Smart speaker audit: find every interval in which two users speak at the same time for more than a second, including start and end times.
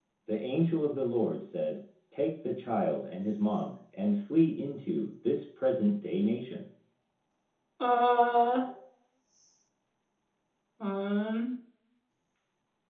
none

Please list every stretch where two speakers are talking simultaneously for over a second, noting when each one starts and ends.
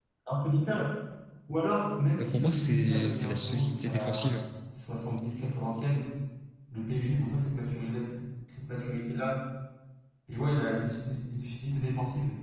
2.2-4.3

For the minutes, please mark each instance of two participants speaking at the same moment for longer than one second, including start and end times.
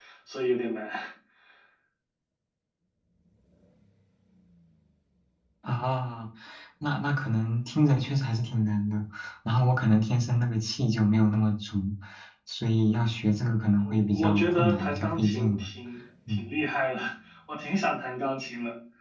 13.8-15.7

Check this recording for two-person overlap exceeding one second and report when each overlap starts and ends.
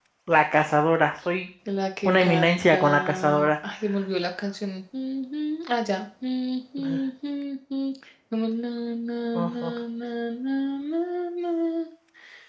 2.0-3.5

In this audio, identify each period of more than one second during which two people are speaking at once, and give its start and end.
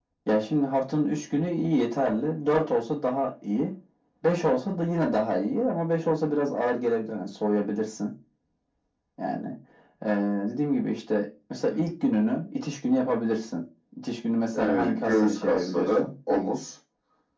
14.6-16.1

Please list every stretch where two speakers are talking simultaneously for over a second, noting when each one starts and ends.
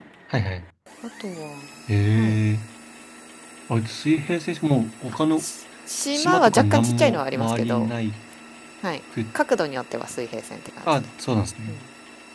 6.1-7.9

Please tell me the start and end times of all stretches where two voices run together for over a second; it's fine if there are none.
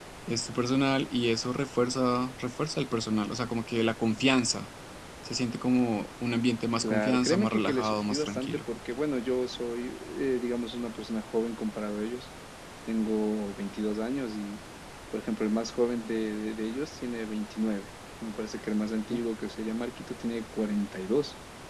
6.8-8.7

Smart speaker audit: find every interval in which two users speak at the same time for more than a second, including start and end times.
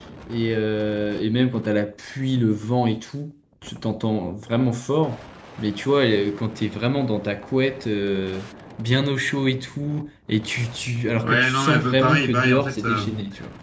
11.2-13.0

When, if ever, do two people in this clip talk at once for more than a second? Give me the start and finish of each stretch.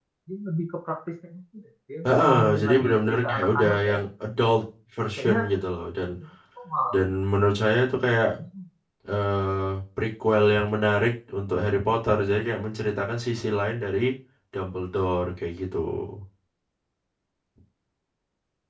2.0-4.0

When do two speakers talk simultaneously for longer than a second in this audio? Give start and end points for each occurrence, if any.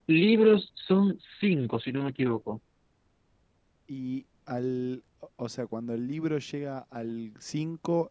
none

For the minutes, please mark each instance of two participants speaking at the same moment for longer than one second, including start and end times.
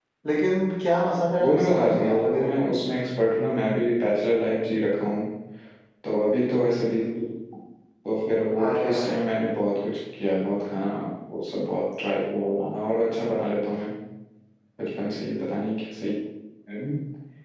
1.4-2.7

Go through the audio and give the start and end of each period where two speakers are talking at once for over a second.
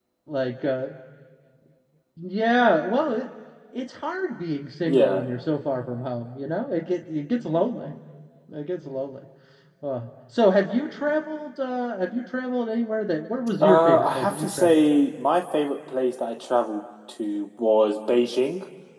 13.6-15.0

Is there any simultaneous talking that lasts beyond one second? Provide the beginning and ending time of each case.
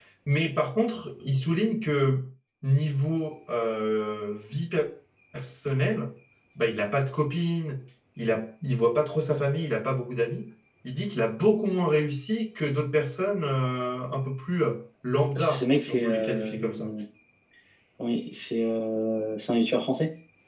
15.4-16.9

